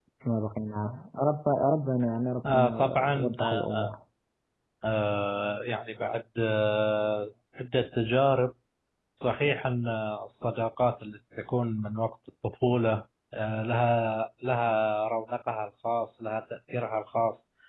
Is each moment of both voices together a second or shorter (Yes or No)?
No